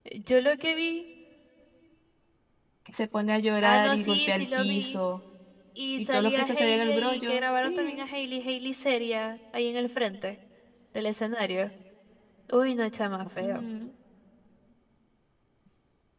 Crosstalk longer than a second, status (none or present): present